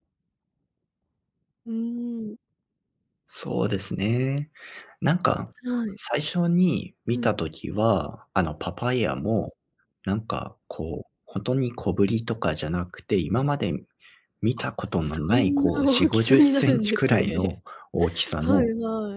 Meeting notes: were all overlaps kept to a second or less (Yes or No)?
No